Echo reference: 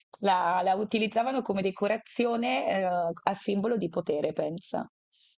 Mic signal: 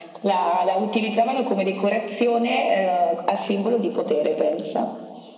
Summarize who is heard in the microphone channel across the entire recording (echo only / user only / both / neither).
echo only